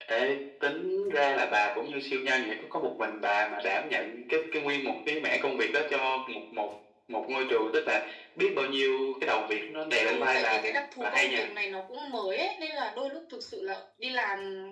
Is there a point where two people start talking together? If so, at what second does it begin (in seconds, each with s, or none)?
10.1 s